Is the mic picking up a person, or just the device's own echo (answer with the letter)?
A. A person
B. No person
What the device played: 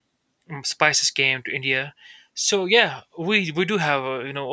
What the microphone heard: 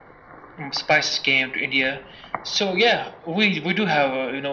B